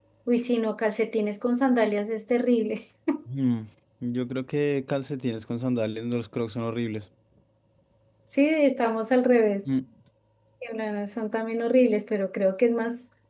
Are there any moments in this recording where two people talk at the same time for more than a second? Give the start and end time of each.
none

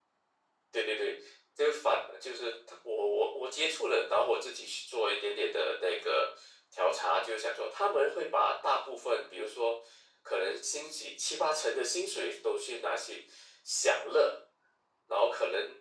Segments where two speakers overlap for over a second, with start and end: none

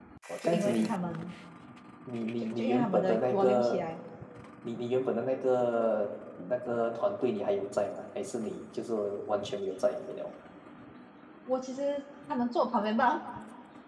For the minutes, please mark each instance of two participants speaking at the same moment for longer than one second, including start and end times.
2.4-3.9

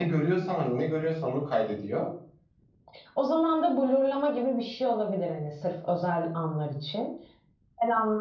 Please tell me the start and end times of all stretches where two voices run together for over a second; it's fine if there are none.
none

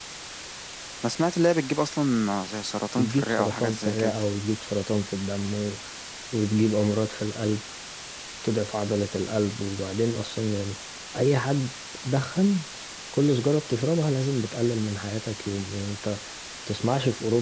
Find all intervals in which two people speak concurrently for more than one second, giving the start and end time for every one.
3.0-4.2

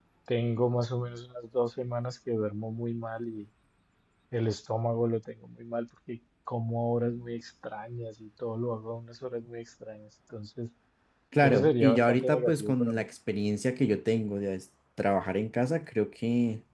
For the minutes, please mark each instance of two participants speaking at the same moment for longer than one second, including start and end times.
11.4-13.1

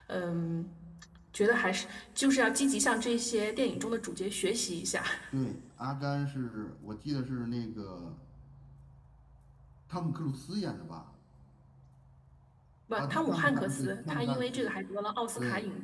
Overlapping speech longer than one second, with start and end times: 13.0-14.7

